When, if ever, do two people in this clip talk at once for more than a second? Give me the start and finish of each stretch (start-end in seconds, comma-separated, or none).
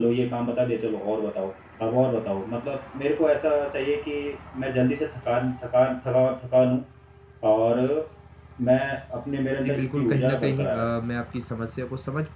9.6-10.9